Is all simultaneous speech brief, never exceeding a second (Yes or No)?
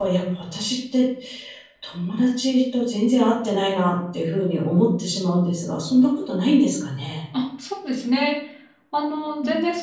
Yes